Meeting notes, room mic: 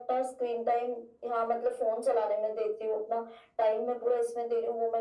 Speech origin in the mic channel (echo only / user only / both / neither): echo only